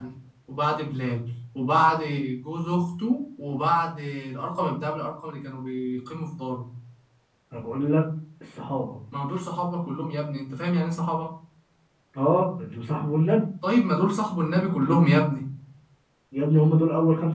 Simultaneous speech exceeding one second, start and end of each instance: none

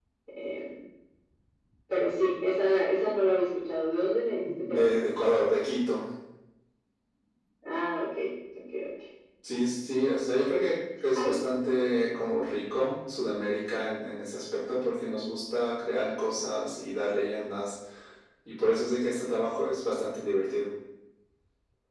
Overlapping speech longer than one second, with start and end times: none

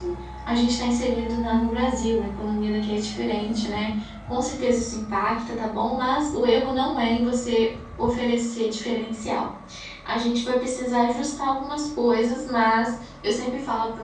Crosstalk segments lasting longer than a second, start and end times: none

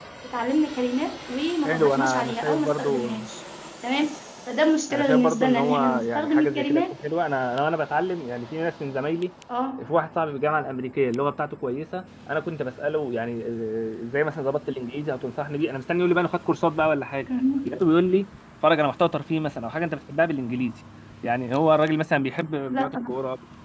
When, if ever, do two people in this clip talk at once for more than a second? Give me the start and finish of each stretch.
1.6-3.2, 4.9-6.9

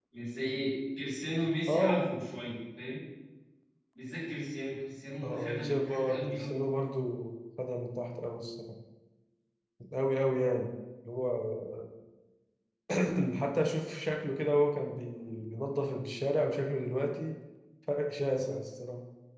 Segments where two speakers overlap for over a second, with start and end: 5.2-6.6

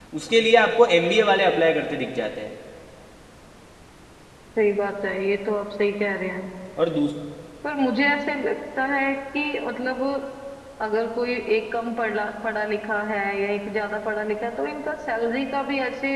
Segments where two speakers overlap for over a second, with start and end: none

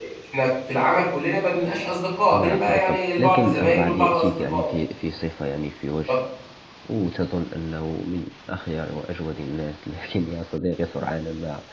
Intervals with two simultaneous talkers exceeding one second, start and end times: 2.3-4.7

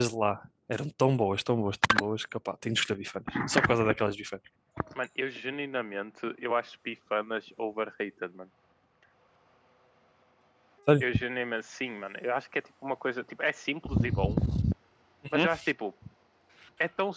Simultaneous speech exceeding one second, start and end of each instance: none

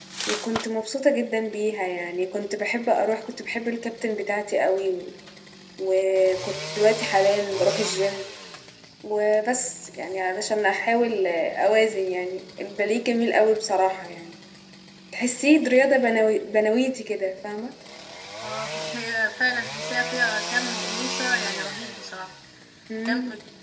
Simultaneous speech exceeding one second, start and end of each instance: none

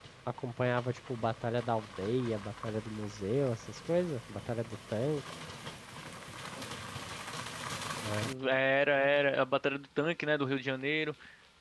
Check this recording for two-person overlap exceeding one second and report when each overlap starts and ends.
none

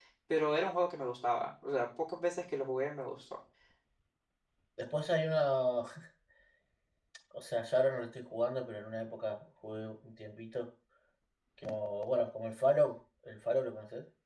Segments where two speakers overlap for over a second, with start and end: none

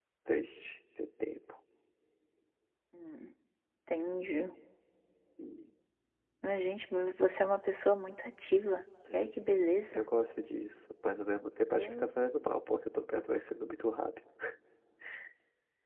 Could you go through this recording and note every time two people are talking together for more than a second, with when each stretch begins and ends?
none

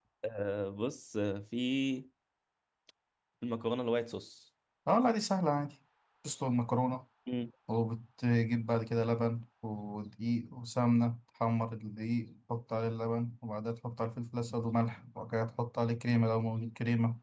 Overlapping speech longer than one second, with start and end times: none

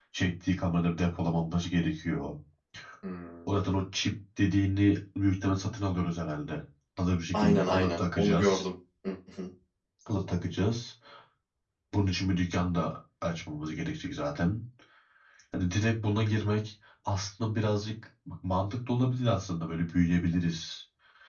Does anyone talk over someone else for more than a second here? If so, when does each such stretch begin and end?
7.3-8.7

